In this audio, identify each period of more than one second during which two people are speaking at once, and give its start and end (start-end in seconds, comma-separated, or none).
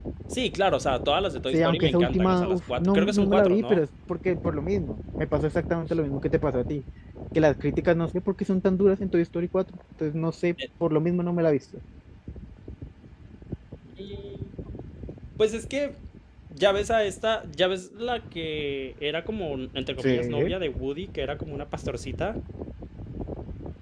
1.5-3.8